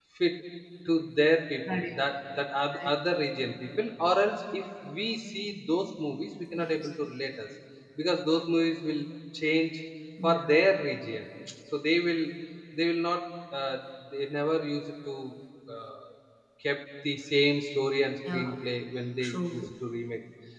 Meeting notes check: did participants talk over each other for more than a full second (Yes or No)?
No